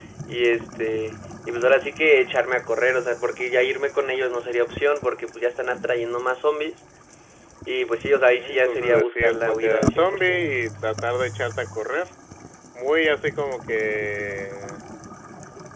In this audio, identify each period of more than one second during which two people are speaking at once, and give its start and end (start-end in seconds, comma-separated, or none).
8.4-10.4